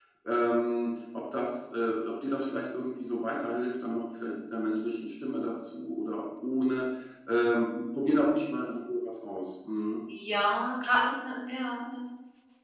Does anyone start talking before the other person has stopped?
No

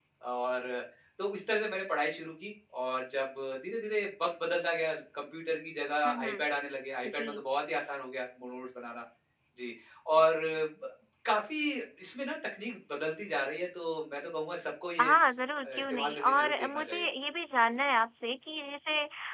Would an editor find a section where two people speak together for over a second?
Yes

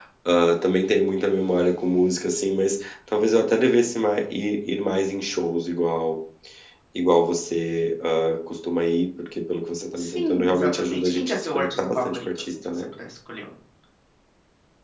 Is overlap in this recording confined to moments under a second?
No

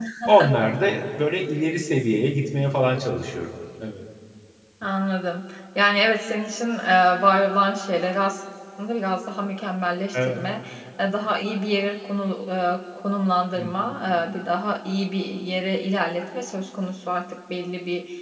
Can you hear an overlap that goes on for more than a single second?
No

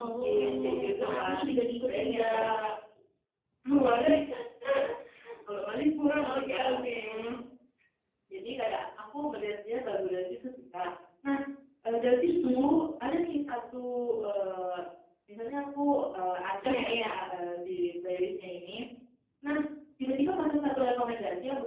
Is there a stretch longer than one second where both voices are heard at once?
Yes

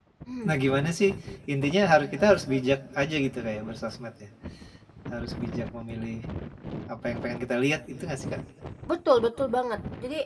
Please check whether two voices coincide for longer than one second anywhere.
No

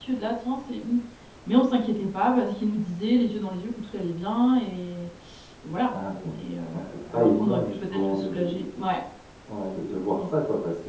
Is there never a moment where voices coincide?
No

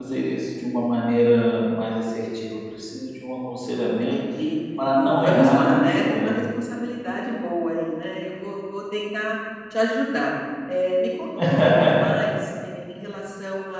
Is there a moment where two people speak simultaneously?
Yes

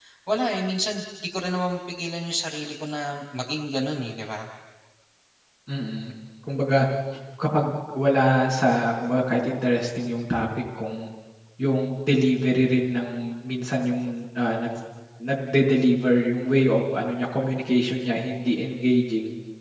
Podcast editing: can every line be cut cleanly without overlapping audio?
Yes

